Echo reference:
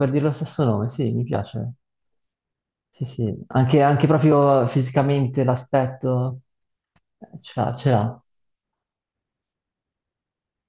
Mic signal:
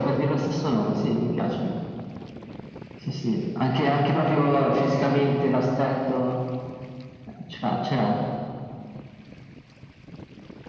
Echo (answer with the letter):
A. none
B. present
B